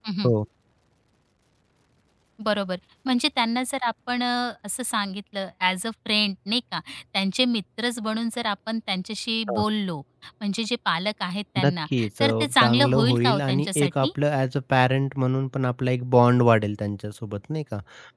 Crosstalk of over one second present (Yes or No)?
Yes